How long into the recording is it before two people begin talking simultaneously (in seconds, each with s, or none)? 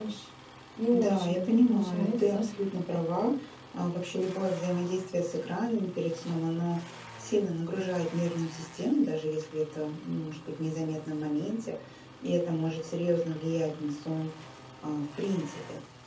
0.9 s